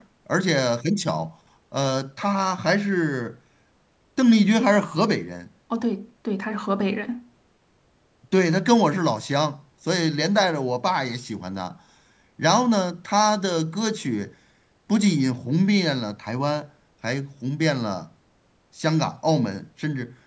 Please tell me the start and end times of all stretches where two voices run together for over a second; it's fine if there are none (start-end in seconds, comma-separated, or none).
none